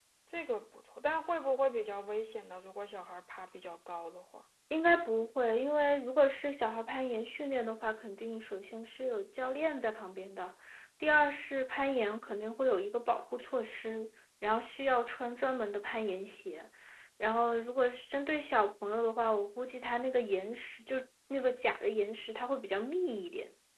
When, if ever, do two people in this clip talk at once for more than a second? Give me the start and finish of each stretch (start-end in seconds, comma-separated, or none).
none